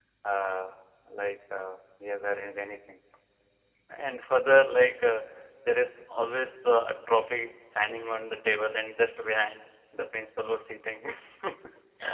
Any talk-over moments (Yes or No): No